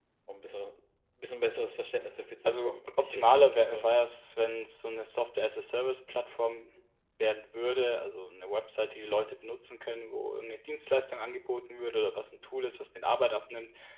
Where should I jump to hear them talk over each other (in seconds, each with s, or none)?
2.5 s